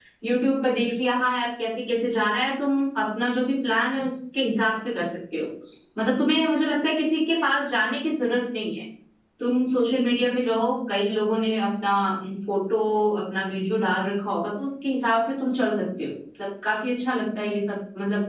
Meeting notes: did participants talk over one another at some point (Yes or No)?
No